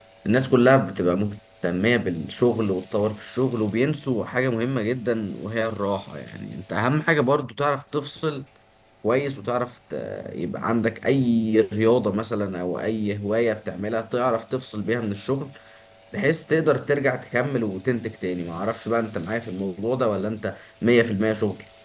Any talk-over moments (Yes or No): No